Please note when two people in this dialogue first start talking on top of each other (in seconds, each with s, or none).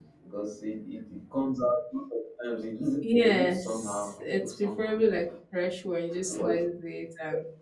3.2 s